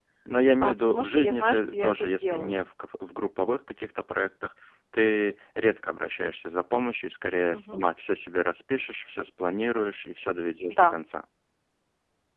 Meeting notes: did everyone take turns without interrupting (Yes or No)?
No